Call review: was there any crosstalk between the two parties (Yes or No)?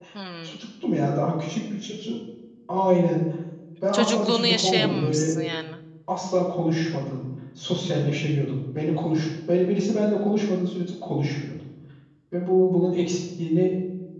Yes